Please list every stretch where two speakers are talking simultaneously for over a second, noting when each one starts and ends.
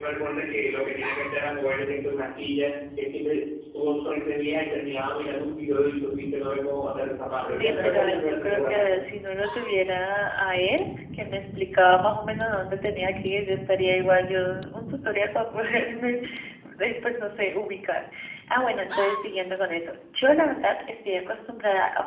7.4-9.0

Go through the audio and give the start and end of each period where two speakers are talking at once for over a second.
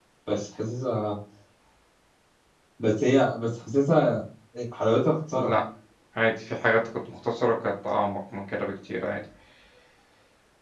none

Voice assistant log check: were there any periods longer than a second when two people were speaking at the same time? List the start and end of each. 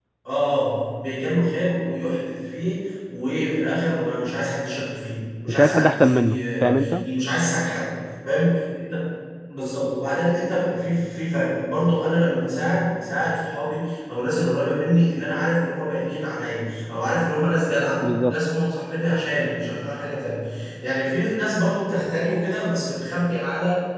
5.5-6.9

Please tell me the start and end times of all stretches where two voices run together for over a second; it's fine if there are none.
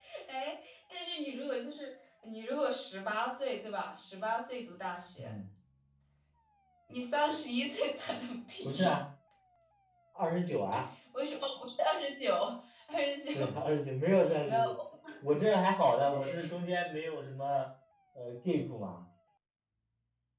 none

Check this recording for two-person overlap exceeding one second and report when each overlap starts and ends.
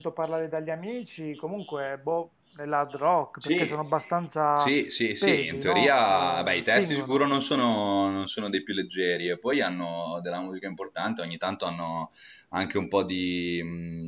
5.2-7.2

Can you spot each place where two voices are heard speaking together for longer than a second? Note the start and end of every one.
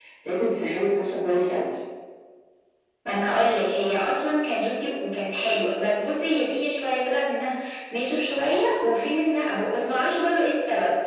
none

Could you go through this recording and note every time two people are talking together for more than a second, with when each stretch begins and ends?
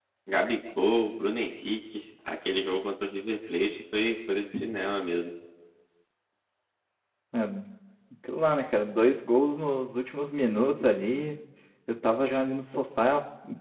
none

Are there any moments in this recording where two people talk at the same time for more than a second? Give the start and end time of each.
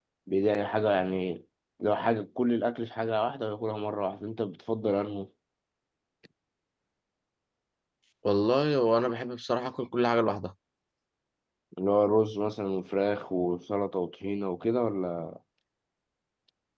none

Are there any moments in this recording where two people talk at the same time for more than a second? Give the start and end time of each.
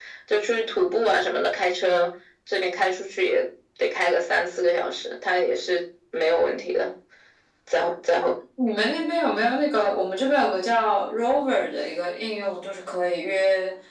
none

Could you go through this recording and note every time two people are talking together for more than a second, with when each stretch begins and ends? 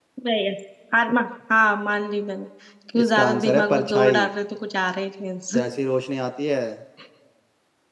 3.0-4.3

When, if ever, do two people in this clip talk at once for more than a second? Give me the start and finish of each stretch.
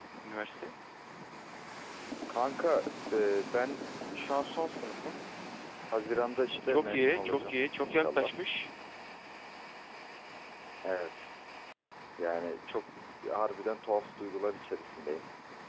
6.6-8.3

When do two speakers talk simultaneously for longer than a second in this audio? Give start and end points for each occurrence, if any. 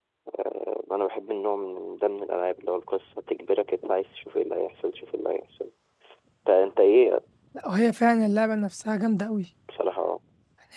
none

